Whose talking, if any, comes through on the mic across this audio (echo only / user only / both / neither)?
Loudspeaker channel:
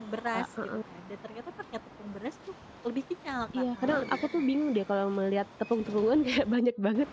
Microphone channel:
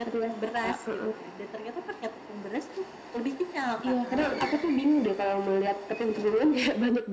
echo only